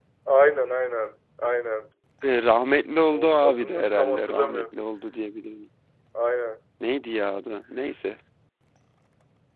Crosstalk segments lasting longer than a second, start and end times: 3.1-4.6

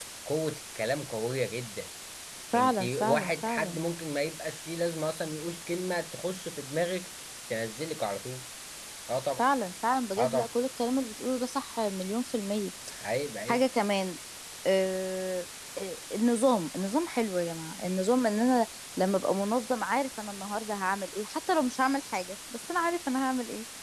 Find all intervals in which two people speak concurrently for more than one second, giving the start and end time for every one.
2.5-3.8

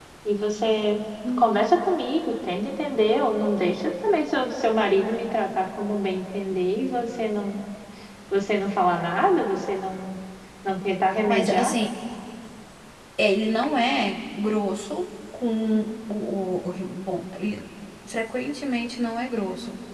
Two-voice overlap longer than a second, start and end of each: none

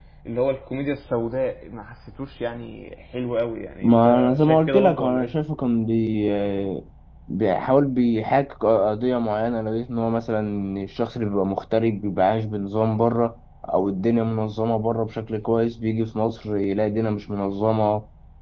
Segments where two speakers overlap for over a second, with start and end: 3.8-5.3

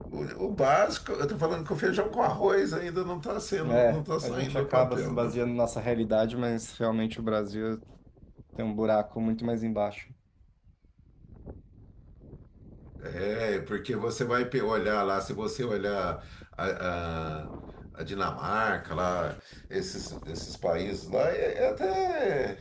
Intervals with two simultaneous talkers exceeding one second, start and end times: 3.6-5.3

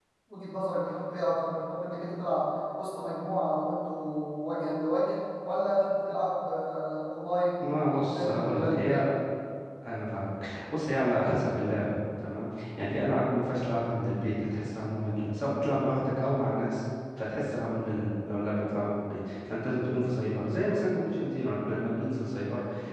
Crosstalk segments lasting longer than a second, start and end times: 7.6-9.1

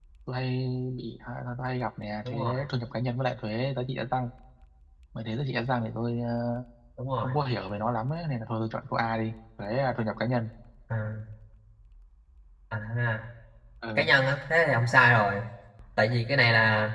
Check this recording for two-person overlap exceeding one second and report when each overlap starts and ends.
none

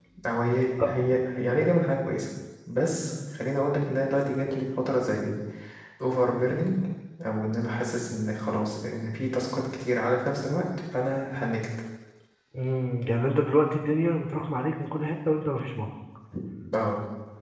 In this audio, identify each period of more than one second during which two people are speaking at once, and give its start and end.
none

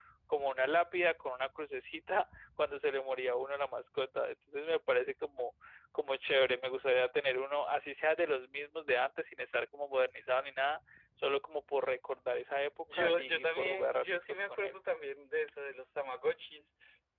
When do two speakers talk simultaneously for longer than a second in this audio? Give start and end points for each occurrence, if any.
12.9-14.7

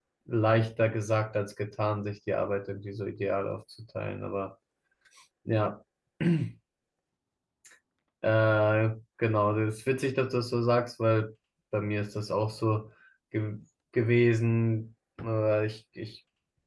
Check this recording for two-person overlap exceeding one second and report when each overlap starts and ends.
none

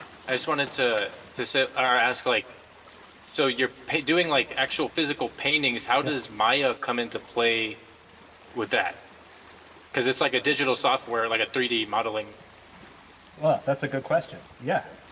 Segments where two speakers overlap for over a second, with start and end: none

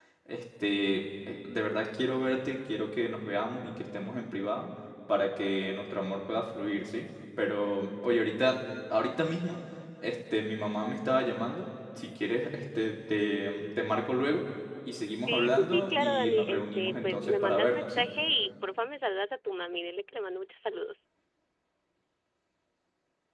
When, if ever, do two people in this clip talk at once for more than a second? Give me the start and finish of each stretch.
15.3-18.1

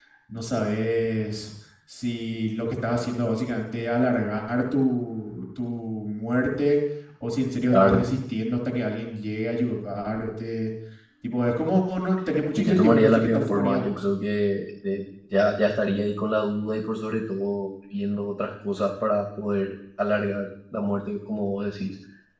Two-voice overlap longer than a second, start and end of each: 12.6-14.0

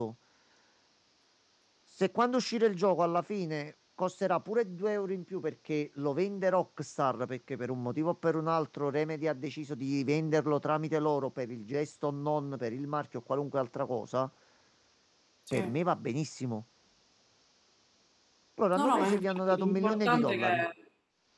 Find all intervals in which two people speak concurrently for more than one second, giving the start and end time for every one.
18.7-20.6

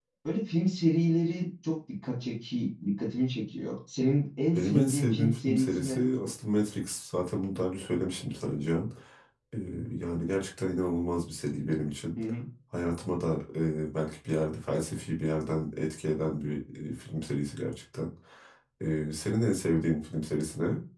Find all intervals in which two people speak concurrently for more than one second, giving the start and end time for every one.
4.5-6.0

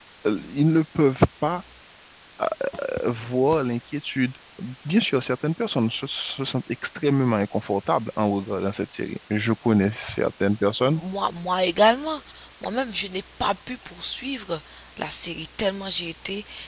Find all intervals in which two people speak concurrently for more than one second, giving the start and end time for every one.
none

